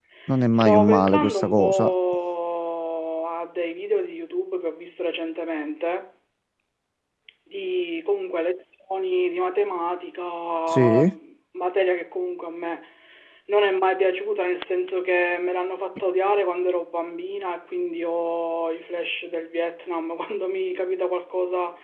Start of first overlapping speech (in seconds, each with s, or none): 0.5 s